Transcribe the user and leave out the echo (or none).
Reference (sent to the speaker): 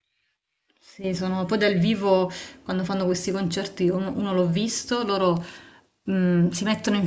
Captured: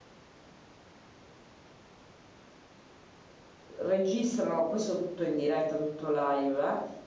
registrano questo tutto in diretta, tutto live,